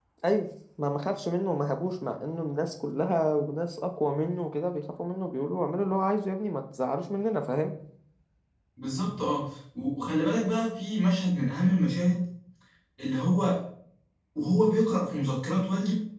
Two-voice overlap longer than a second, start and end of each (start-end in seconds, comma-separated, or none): none